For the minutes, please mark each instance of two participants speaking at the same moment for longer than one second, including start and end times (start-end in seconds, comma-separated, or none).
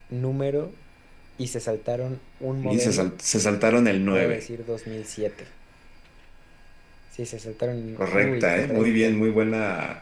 8.0-9.2